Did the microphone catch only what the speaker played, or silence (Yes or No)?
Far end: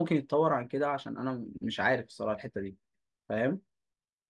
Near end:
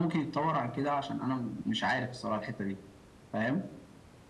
Yes